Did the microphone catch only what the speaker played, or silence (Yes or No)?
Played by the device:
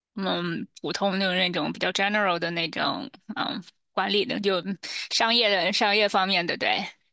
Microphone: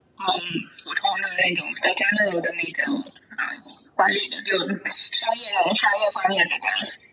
Yes